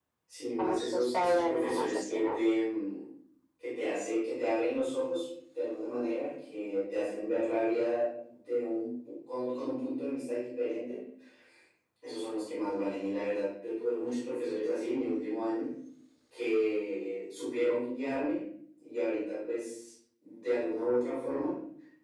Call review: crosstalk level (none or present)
present